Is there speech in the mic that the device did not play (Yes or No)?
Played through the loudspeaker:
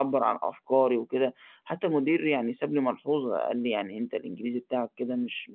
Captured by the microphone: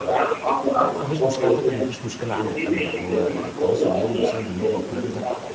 Yes